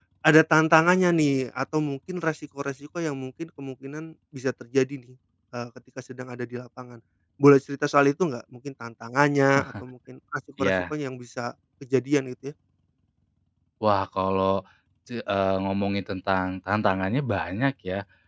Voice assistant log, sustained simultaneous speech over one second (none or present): none